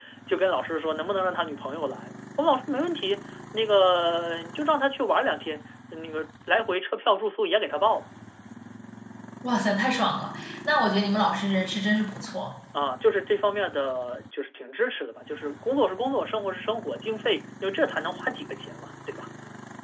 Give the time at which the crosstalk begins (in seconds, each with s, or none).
none